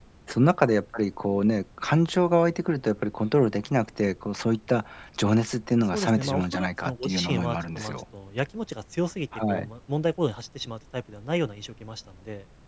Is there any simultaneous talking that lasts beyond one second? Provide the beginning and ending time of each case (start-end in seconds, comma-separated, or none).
5.9-8.0